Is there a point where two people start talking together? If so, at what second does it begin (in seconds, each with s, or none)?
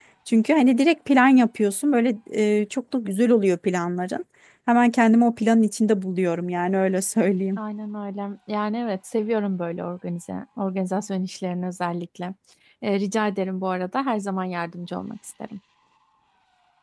none